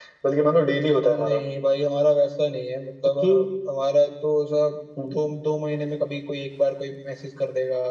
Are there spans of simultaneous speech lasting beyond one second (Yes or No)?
No